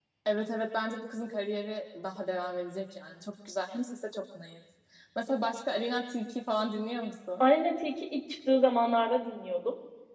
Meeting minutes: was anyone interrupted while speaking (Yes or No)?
No